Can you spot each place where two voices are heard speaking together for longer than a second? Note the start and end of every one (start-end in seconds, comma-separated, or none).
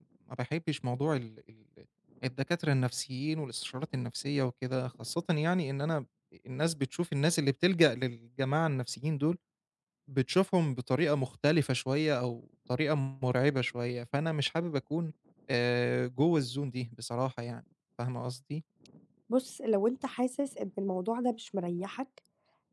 none